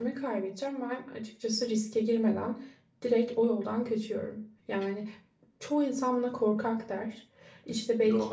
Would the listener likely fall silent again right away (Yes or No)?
Yes